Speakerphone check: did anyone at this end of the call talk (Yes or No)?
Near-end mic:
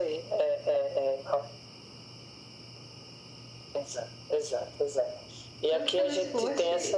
Yes